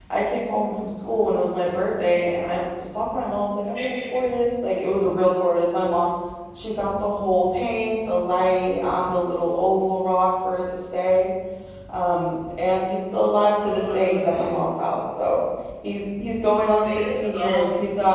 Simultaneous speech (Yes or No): Yes